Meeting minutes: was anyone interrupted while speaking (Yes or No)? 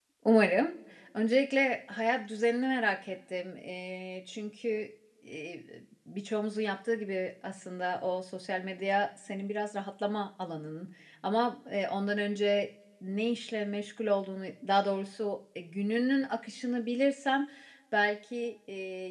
No